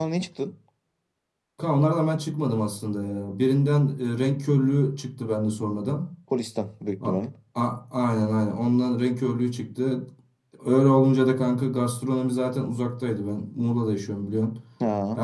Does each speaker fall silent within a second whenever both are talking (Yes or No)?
Yes